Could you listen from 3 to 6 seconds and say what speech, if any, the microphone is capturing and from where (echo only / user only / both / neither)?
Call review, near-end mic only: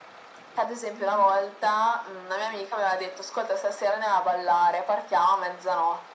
echo only